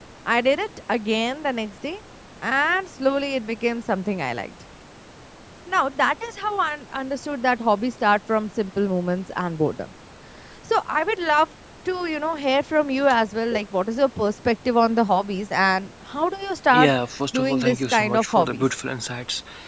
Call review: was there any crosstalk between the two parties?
Yes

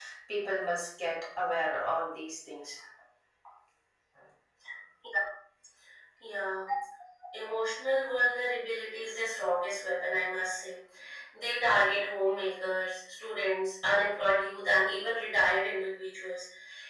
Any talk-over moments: No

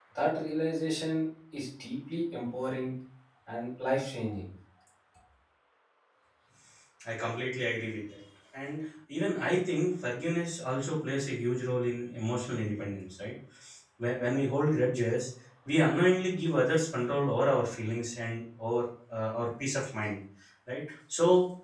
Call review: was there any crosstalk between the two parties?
No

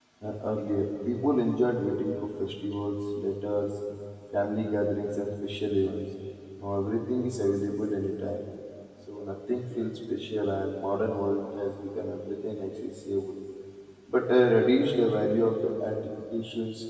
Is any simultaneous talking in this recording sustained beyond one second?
No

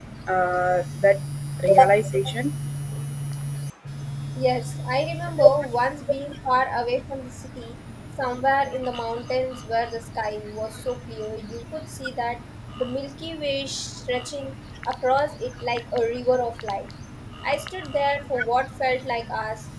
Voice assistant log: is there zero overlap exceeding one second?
Yes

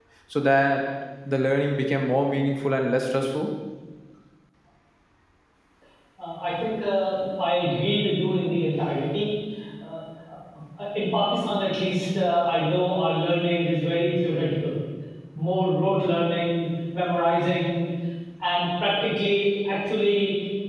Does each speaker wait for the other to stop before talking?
Yes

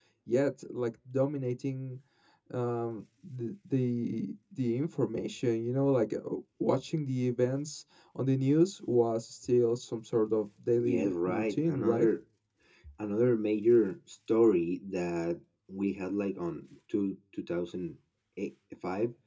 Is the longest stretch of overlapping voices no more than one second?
No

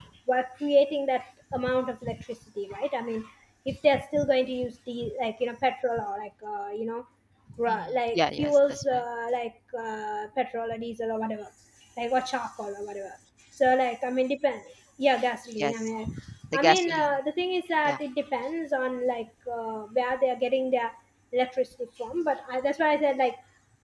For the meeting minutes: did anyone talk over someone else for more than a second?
Yes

